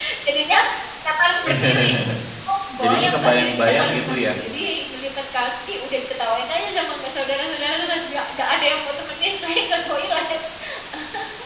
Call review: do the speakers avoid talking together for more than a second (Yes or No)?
No